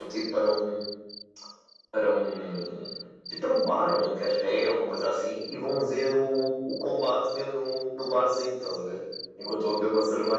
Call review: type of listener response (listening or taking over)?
listening